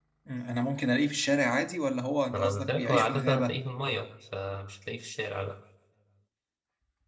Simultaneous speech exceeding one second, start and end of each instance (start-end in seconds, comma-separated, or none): 2.3-3.6